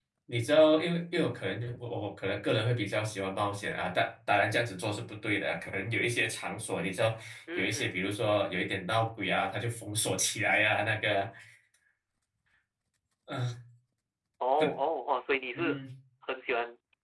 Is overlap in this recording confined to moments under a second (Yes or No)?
Yes